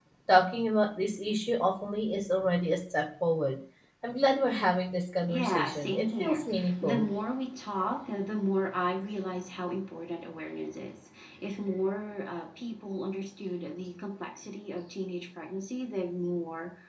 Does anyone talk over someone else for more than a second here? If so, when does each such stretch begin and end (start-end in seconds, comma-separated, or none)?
5.2-7.1